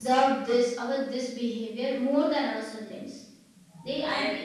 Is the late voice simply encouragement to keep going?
Yes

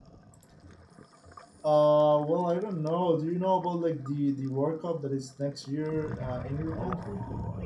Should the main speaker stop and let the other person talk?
Yes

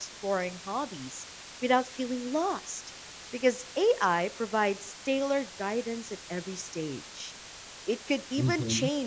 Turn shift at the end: No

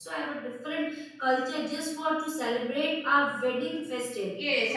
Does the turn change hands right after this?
Yes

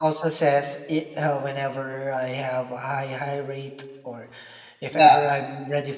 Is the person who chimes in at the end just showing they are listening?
Yes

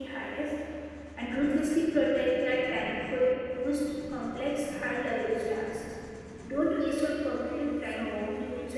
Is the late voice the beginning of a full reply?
Yes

